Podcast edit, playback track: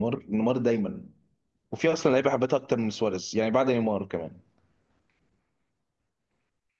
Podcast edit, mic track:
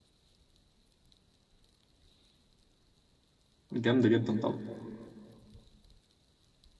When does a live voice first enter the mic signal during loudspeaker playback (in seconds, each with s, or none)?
3.7 s